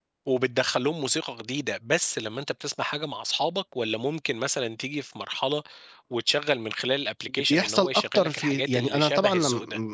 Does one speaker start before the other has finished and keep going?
Yes, from 7.5 s

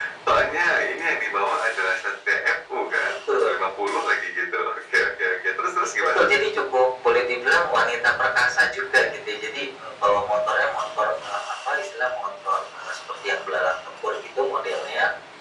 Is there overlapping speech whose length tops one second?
No

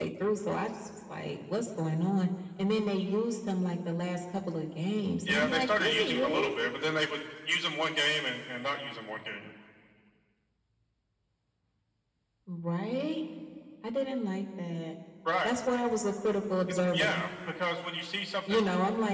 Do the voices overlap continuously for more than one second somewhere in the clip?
Yes, from 5.3 s

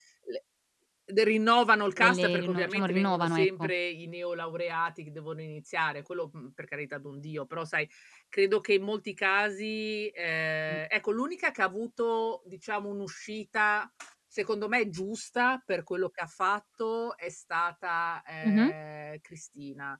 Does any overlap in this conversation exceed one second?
Yes, from 2.0 s

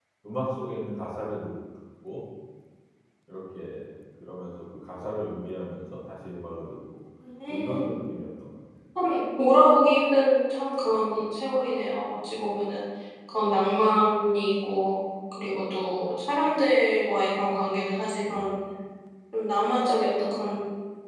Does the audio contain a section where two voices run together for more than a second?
No

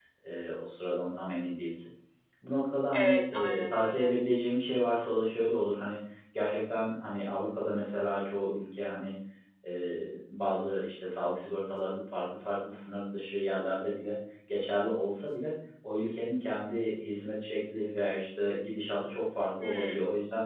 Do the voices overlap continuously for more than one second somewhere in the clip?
Yes, from 2.9 s

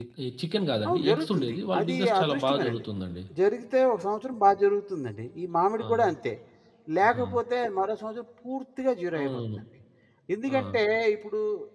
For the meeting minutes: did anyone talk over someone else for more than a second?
Yes, from 0.9 s

